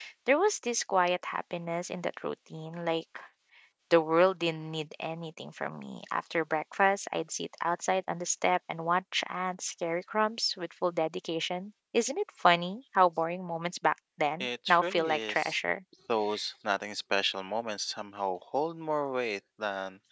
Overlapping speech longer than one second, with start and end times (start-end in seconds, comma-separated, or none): 14.4-15.6